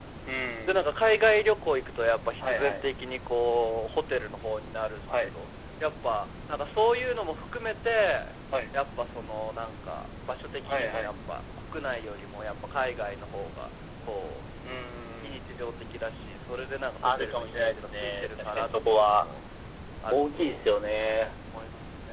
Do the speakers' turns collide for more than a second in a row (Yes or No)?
Yes